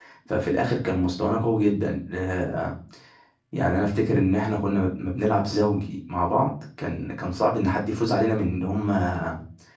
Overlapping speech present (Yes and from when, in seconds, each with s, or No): No